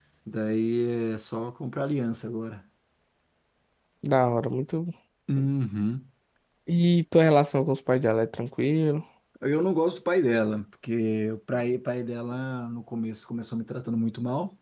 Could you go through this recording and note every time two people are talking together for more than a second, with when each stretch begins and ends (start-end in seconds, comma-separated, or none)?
none